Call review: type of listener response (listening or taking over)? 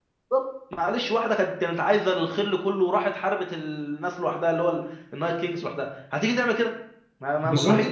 taking over